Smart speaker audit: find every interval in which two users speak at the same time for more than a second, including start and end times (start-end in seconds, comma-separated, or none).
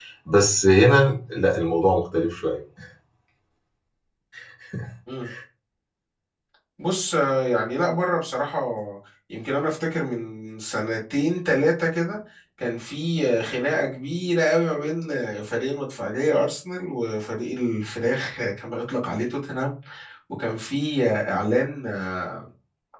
none